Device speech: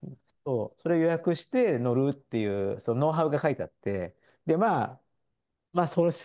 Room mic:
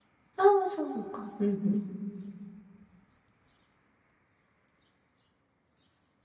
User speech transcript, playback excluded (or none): ああ、そうか。うんうん。